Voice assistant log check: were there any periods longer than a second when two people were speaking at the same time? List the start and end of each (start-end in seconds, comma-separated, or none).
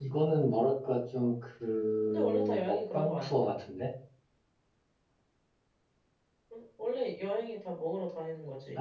2.1-3.5